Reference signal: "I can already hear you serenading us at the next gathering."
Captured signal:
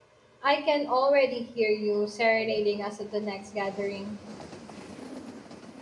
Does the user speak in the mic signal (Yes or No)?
No